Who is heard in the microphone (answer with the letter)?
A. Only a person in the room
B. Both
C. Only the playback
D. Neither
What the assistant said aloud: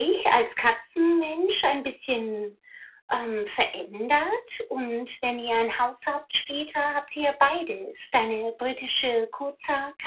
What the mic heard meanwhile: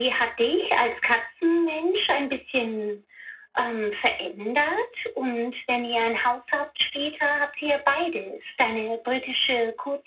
C